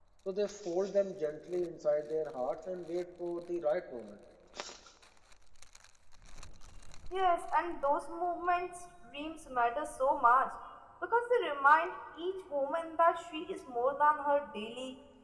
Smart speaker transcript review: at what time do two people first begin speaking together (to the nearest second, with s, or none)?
none